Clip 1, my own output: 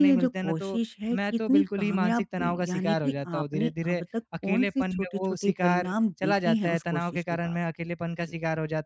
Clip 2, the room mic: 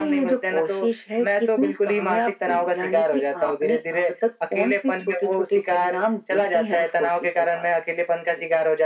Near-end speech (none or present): none